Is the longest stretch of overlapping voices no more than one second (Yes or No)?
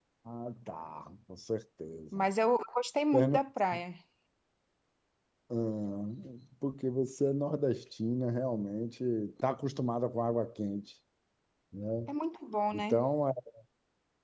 Yes